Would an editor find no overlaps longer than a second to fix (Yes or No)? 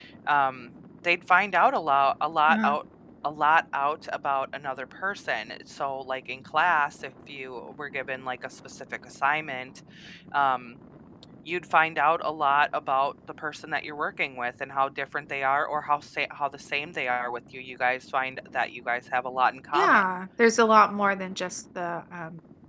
Yes